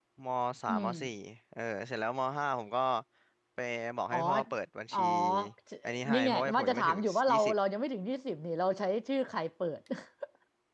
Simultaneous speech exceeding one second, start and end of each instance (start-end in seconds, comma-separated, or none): 6.1-7.5